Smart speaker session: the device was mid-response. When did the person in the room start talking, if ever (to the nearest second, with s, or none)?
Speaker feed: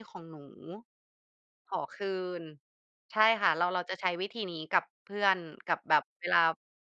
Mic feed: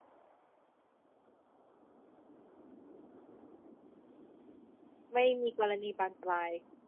5 s